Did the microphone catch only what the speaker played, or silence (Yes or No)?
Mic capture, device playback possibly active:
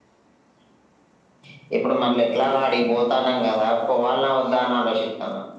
Yes